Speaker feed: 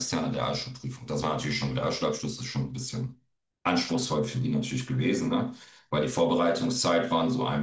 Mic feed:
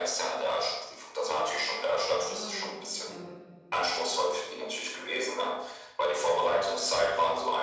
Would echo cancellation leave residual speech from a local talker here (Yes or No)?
Yes